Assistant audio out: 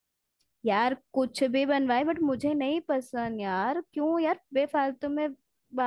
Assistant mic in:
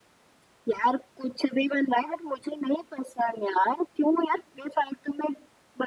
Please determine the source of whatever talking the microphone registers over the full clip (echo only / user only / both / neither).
echo only